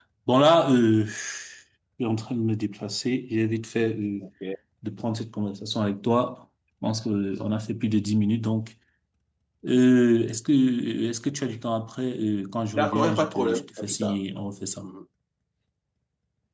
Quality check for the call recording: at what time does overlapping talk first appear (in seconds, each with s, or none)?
12.7 s